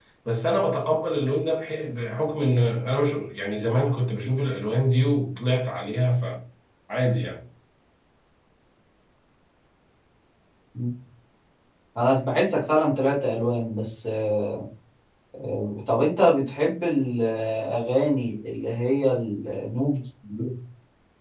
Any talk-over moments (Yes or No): No